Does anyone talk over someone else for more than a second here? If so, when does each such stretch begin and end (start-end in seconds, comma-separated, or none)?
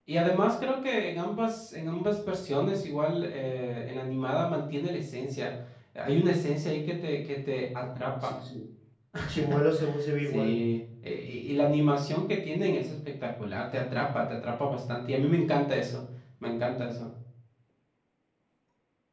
none